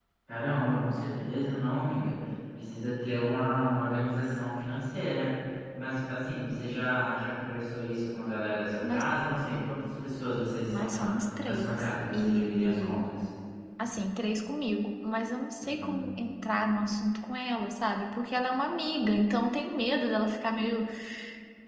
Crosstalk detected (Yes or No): Yes